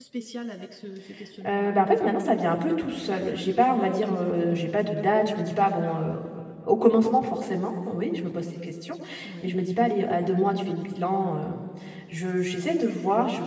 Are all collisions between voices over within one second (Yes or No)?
Yes